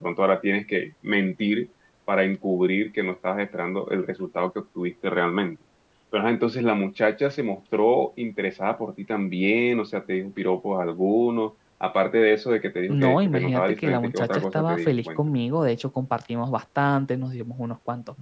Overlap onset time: 12.9 s

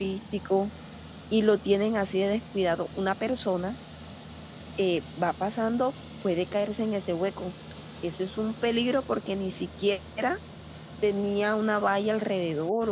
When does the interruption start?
none

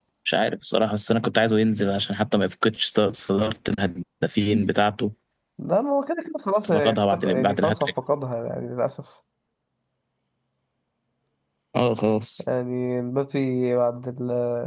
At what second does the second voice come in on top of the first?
6.5 s

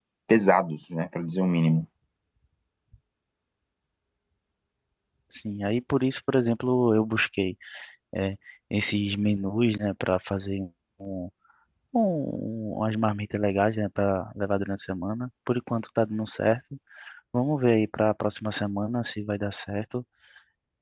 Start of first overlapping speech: none

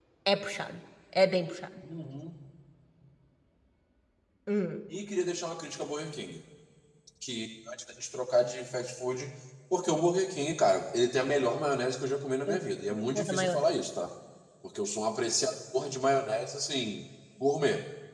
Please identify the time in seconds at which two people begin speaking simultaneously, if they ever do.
12.5 s

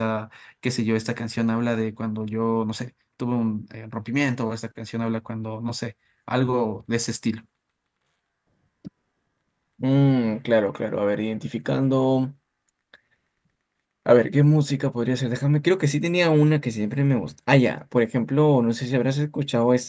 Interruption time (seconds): none

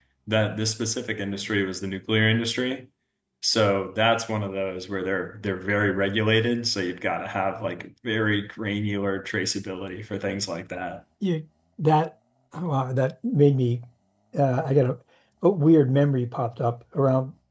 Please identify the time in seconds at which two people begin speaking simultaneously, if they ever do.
none

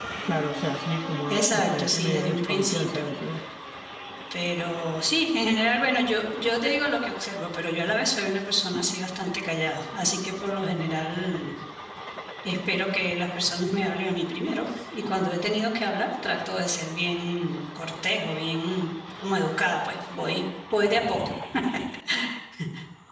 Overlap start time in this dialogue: 1.3 s

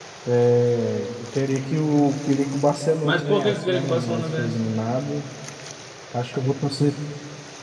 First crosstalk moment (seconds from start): 3.0 s

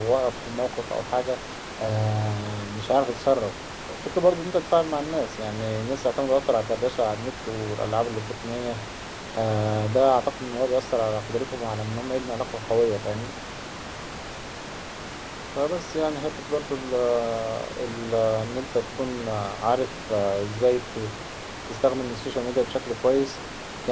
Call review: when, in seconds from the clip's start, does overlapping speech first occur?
none

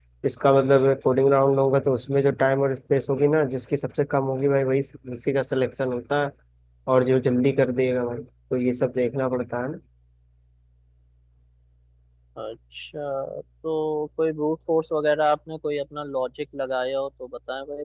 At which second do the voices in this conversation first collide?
none

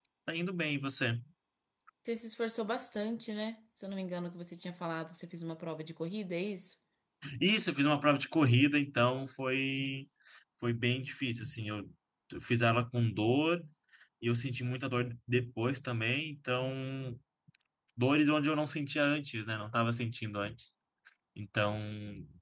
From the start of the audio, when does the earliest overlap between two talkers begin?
none

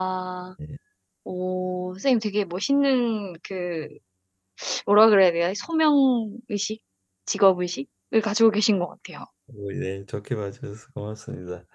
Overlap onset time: none

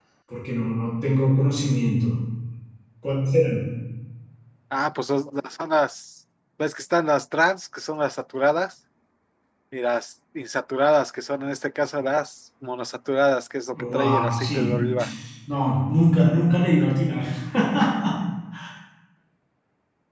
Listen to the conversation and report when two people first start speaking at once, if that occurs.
13.7 s

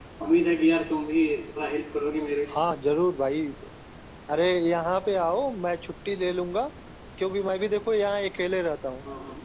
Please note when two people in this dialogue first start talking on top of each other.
none

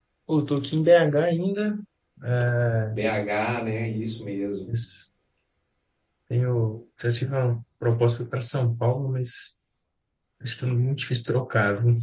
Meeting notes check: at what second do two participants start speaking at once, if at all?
none

